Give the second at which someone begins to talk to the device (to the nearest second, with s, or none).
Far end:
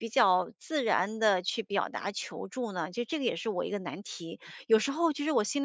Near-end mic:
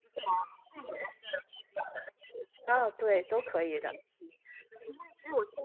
3 s